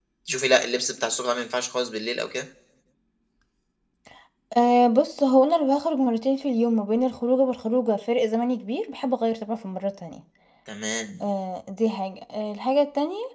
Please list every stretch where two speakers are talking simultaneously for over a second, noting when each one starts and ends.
none

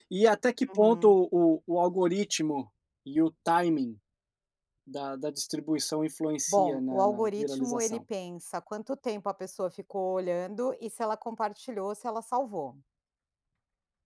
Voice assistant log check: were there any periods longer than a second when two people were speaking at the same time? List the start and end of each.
6.5-8.0

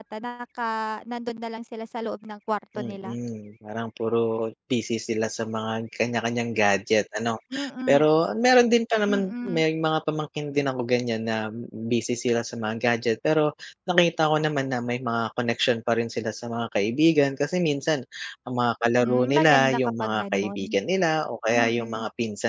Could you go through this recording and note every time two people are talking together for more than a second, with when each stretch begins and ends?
19.0-20.8

